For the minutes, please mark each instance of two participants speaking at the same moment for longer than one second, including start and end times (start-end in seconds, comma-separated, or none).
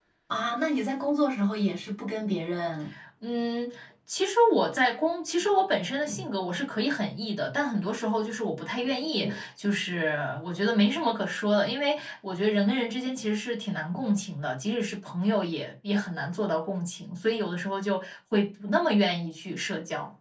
none